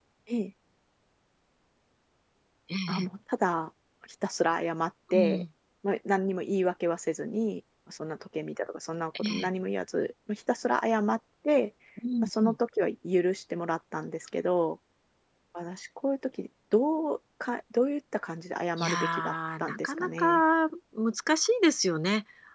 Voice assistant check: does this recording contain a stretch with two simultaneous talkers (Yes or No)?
Yes